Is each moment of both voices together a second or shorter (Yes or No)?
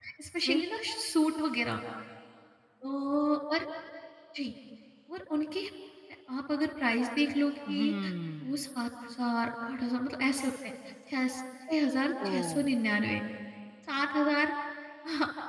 Yes